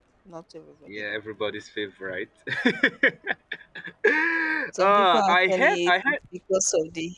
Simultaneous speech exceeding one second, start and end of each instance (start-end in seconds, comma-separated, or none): 4.8-6.1